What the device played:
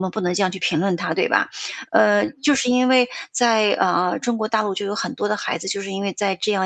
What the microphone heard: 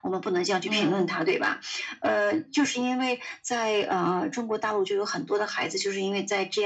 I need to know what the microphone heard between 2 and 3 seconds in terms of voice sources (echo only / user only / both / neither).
echo only